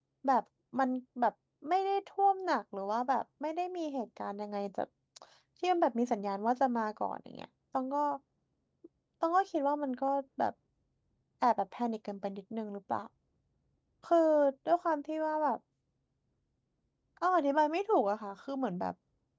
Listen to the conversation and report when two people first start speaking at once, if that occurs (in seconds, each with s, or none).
none